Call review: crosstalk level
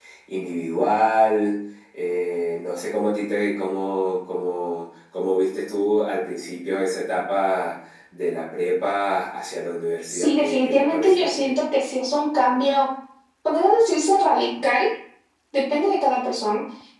present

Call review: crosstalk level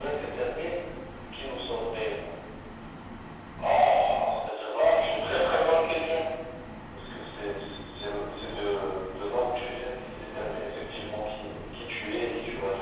present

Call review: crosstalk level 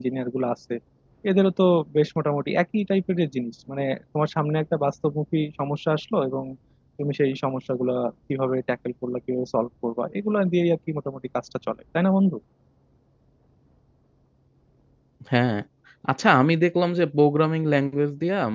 none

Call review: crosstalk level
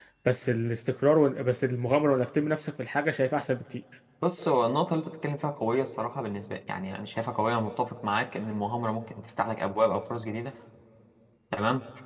none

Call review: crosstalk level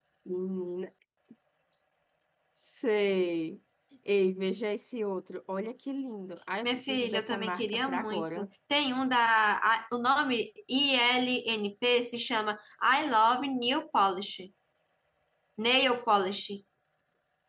present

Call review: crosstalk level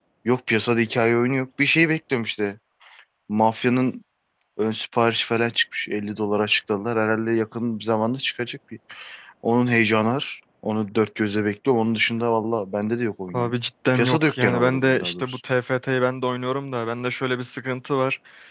present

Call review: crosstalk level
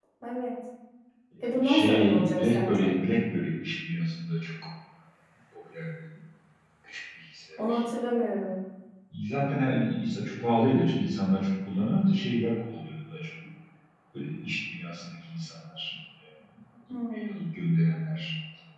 present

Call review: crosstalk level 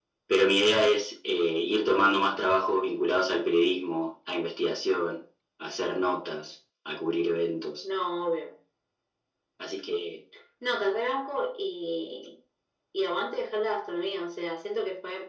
none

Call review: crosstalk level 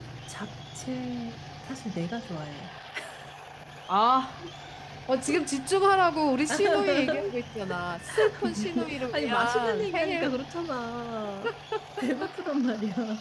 present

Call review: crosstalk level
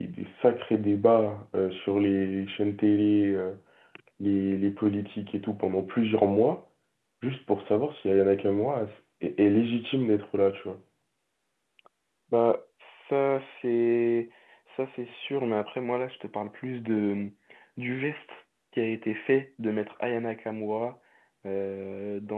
none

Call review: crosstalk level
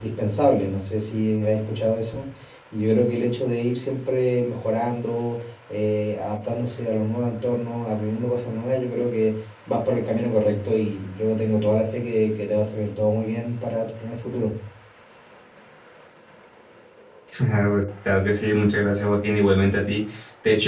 none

